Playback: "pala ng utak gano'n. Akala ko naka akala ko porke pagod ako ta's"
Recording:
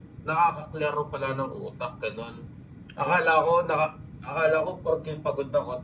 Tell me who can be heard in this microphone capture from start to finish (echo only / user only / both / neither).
echo only